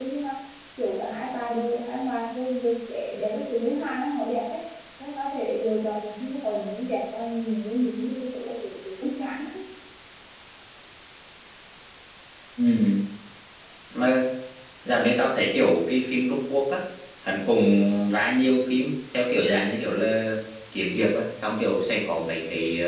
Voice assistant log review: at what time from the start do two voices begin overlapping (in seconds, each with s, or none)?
none